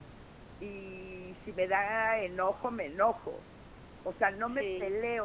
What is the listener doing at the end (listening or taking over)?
listening